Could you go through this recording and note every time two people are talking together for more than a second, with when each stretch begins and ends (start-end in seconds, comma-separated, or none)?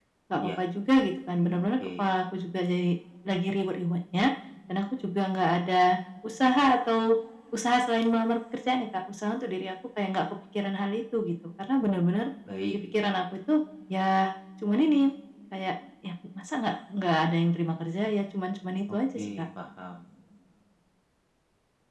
none